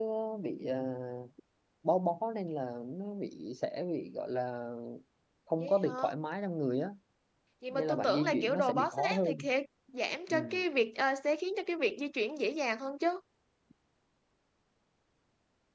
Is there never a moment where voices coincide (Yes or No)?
No